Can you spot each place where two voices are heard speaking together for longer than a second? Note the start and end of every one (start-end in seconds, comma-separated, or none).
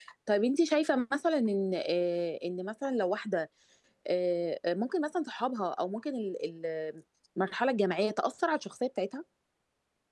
none